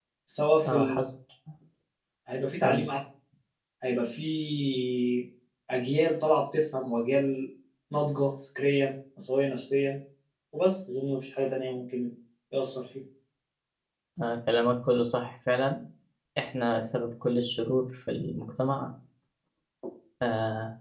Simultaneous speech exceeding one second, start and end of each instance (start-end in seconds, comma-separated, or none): none